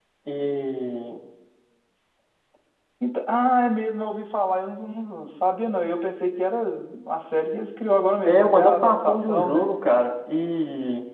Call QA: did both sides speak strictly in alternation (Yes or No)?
No